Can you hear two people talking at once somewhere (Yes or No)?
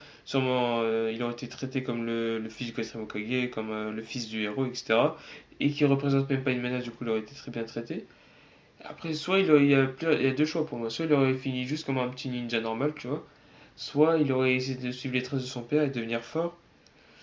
No